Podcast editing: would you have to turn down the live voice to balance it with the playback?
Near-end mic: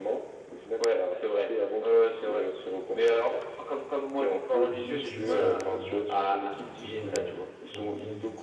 No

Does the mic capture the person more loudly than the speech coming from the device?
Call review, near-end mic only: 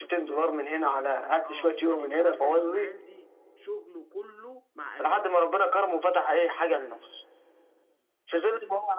No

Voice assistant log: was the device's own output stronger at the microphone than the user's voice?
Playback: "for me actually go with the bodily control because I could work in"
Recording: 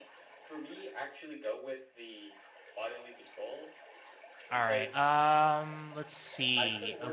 No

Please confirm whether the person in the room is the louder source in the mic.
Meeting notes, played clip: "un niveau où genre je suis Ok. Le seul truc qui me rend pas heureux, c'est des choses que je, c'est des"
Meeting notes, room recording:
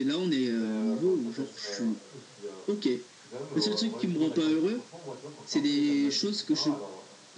No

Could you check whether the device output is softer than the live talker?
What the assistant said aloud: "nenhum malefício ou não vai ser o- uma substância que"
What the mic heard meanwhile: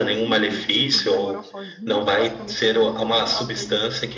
No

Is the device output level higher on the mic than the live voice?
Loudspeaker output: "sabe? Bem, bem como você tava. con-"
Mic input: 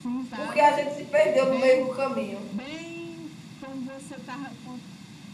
No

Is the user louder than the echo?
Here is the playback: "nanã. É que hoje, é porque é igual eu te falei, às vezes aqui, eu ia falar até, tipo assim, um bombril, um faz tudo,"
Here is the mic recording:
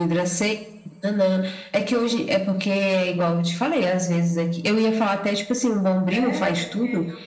No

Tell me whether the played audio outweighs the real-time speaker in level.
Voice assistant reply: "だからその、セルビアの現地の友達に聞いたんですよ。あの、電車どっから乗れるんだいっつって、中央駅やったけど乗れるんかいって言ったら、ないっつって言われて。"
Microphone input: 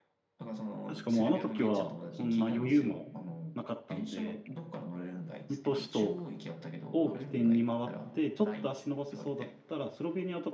No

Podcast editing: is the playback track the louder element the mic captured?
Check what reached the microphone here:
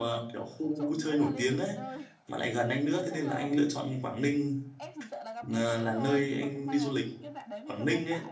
No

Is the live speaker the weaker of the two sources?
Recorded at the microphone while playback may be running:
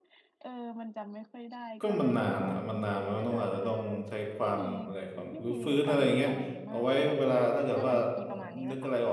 No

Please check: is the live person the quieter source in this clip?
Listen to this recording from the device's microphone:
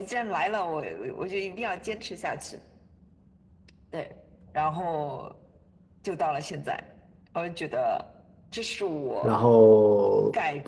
No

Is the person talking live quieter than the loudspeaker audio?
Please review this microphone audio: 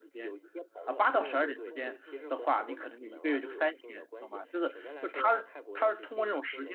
No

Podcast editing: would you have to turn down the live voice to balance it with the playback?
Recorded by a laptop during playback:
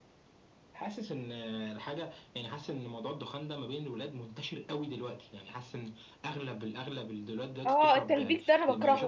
Yes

